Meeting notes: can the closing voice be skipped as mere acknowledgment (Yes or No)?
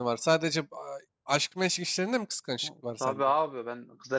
No